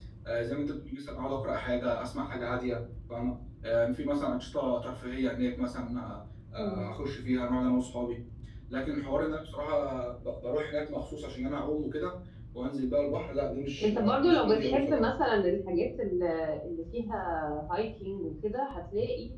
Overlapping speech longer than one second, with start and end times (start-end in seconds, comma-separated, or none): 13.8-15.0